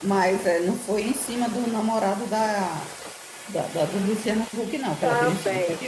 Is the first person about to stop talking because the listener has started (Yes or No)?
Yes